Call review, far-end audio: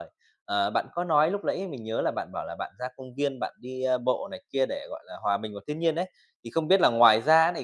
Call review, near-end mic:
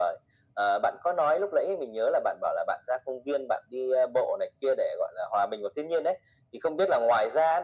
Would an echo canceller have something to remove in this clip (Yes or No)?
Yes